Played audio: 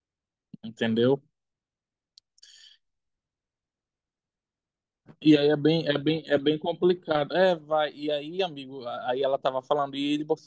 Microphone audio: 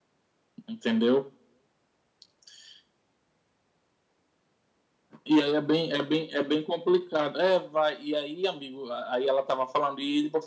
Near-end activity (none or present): none